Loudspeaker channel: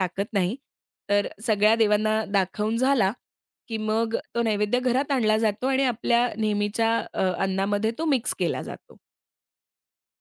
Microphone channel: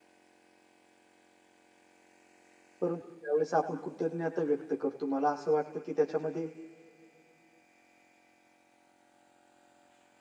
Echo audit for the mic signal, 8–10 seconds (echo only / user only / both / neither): neither